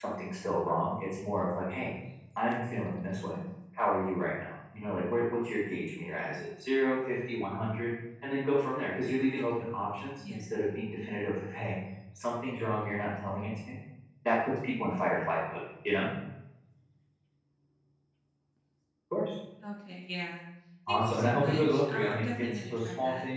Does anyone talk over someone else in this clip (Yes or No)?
Yes